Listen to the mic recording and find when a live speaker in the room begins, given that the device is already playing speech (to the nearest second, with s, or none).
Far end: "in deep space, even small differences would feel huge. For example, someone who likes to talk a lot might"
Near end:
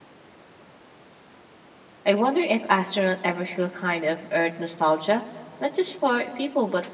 2 s